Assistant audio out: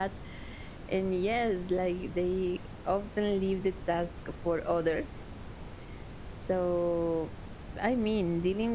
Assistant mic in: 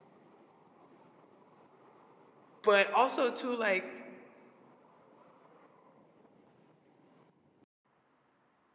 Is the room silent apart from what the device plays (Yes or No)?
No